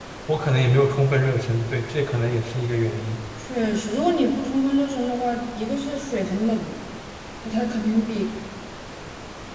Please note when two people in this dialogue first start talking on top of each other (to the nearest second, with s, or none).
none